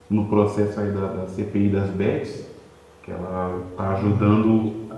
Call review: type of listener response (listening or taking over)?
listening